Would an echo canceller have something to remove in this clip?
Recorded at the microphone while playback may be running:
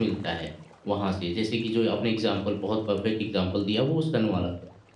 No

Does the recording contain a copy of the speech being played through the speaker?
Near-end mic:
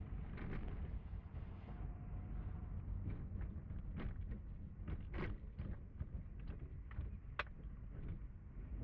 No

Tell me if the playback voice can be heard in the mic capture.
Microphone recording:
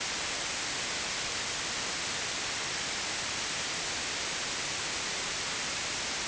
No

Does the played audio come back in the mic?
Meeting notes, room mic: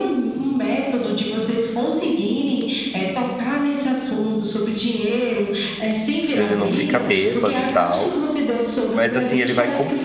Yes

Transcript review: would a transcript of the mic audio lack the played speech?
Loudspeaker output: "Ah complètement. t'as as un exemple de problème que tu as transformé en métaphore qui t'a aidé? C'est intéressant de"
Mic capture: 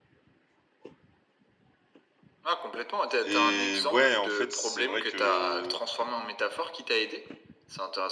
No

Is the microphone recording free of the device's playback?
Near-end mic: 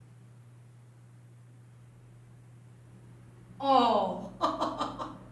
Yes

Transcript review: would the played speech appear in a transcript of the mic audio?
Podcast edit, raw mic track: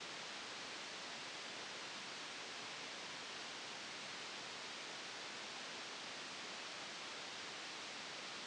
No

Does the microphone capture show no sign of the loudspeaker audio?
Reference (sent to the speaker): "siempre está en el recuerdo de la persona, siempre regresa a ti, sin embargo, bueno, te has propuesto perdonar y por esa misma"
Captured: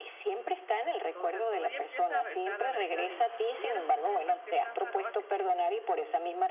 No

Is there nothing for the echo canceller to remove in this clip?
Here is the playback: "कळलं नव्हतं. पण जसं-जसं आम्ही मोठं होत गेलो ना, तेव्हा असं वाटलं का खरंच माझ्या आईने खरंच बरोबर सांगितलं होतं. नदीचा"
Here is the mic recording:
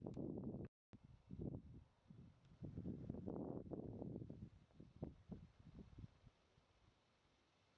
Yes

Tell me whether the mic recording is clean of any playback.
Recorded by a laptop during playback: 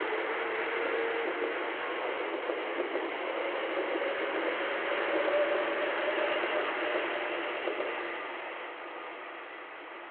Yes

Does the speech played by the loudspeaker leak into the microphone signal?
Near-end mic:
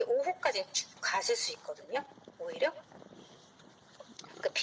Yes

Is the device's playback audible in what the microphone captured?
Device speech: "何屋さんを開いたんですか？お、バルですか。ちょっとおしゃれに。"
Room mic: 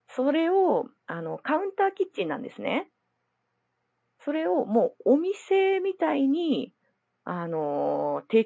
No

